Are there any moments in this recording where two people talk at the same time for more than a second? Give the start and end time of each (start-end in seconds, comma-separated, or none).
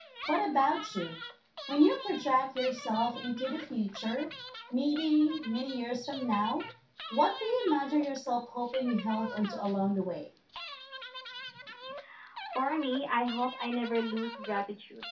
none